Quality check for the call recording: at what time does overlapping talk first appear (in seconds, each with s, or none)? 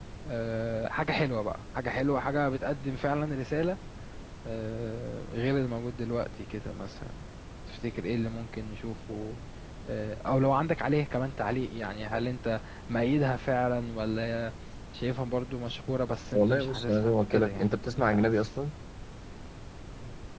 16.3 s